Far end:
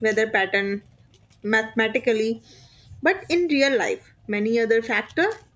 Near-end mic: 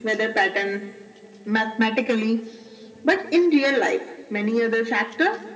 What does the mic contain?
echo only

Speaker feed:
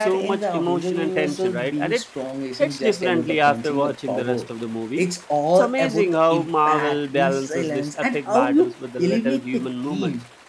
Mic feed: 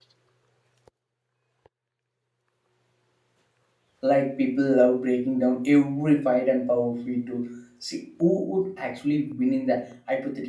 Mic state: user only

